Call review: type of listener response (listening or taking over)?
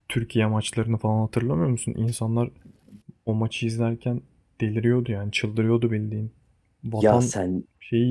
listening